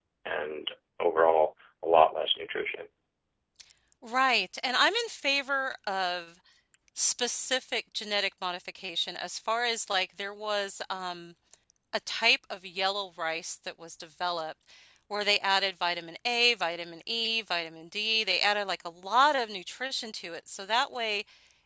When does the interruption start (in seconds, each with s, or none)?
none